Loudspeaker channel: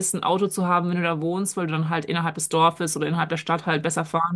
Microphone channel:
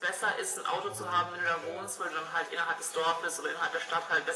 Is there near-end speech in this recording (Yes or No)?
Yes